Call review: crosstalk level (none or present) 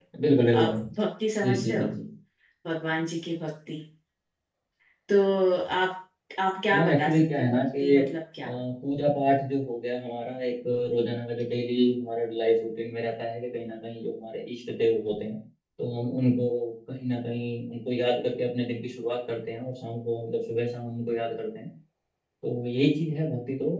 present